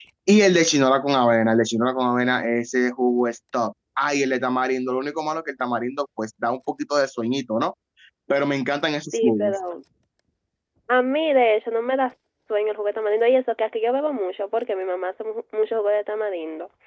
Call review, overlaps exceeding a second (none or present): none